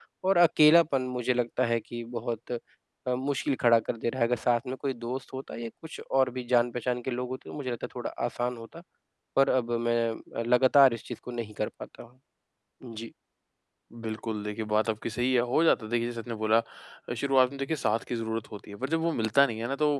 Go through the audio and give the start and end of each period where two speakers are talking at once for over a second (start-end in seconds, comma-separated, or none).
none